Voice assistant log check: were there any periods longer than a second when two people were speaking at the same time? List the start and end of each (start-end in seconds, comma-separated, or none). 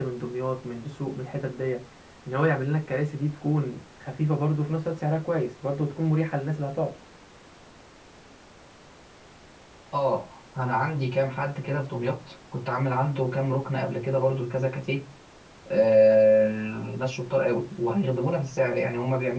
none